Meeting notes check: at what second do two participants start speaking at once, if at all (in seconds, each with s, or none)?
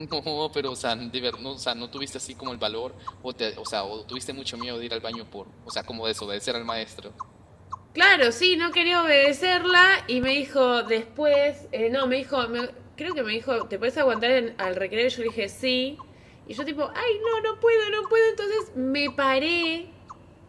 none